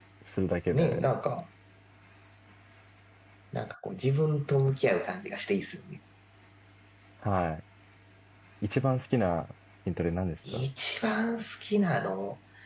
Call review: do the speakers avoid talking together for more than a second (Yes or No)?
Yes